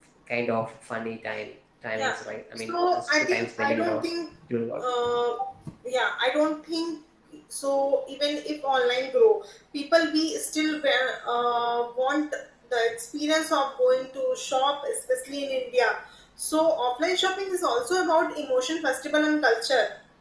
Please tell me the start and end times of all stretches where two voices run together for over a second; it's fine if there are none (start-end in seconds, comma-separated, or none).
2.7-4.0